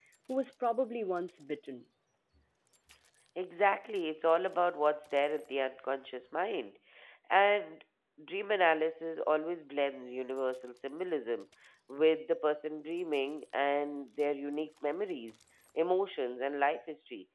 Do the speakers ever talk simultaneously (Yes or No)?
No